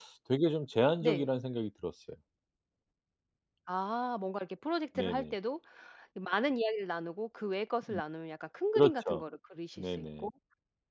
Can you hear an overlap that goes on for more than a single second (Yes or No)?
No